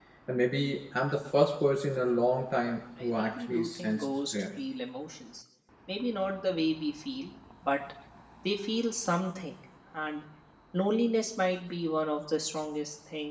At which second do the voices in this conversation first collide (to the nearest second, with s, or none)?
3 s